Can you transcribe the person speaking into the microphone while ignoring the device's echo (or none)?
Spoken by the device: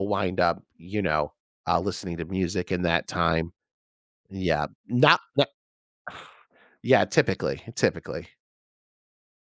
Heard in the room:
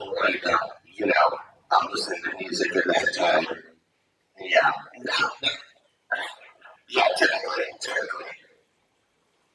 none